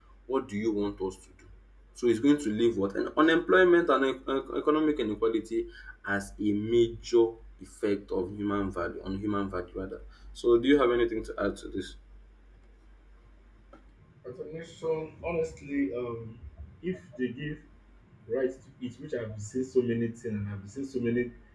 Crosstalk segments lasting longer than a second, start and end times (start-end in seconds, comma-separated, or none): none